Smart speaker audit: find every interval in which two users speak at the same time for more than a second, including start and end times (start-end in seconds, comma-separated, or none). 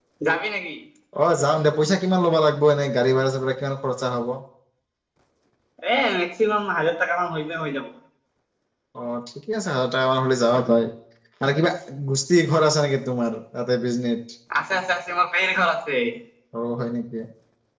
none